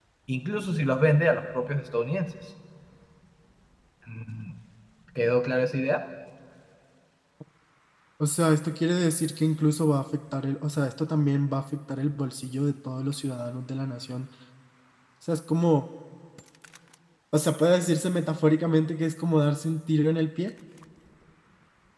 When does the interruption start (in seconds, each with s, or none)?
none